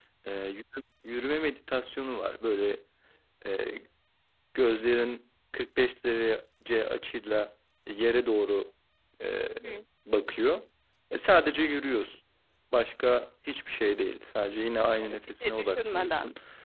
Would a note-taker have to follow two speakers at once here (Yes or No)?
Yes